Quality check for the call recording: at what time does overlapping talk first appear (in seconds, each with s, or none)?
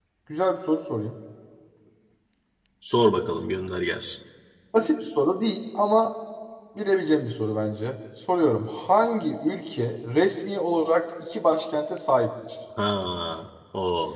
none